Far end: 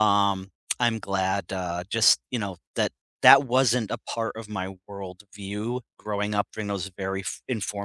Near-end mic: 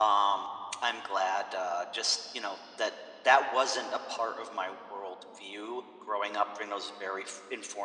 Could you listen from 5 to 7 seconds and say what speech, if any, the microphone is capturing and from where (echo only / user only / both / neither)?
echo only